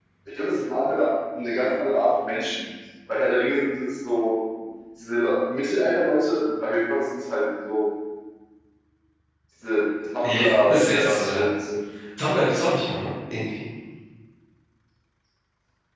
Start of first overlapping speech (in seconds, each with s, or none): 10.2 s